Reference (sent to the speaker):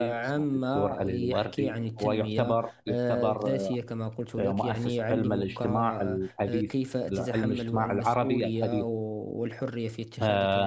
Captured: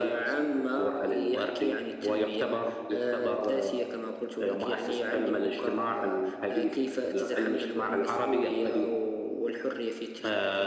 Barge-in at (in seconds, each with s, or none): none